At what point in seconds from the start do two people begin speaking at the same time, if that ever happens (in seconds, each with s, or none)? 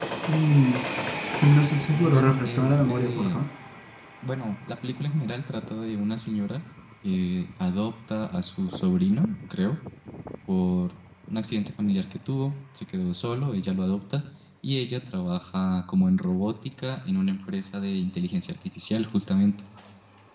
1.9 s